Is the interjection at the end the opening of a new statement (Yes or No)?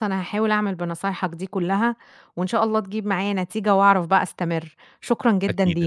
Yes